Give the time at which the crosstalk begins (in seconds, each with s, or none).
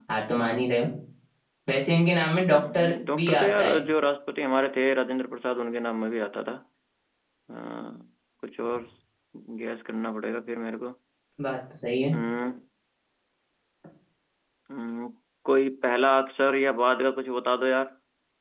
2.5 s